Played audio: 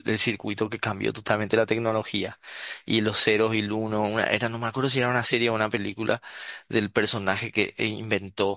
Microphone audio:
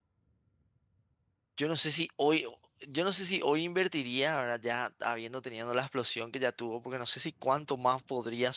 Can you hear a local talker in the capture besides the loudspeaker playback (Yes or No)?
Yes